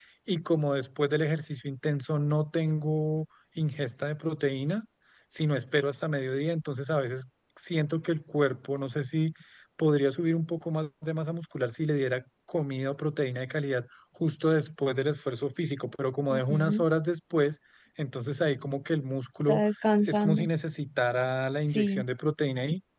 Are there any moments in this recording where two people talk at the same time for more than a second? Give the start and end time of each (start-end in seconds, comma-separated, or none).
none